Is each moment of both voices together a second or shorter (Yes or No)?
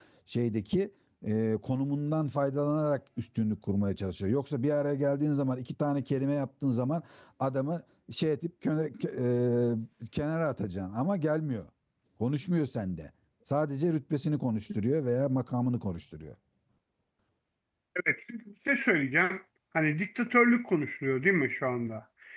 Yes